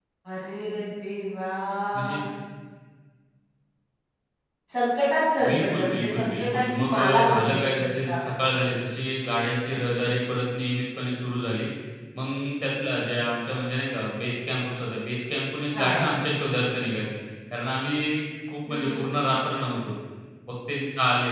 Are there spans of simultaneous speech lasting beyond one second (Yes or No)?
Yes